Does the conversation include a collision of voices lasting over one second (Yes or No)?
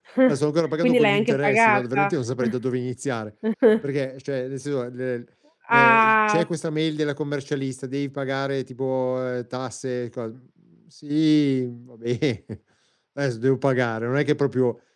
Yes